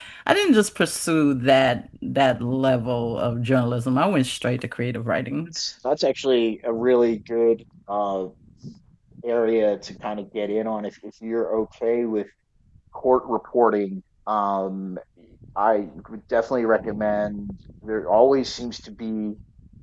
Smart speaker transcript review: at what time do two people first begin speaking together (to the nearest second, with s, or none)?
none